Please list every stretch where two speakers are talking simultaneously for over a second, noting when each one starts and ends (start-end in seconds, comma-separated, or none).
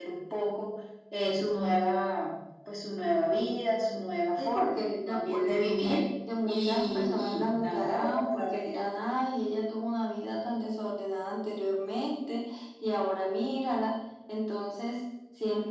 4.4-6.0, 6.4-8.8